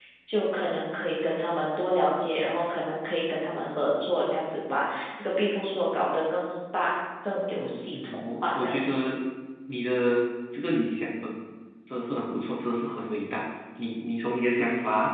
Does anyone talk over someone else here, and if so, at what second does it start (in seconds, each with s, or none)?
7.6 s